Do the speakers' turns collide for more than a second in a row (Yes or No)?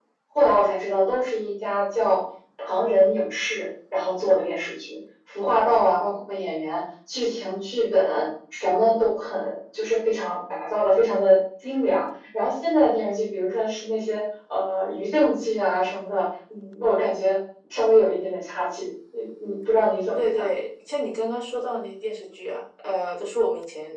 No